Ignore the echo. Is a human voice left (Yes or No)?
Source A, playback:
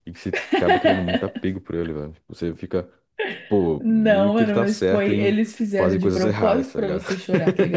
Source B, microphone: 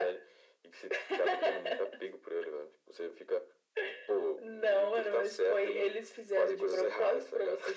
No